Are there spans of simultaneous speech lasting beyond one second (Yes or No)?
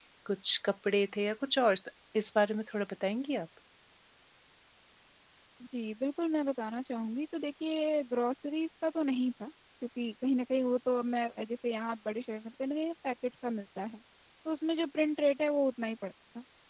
No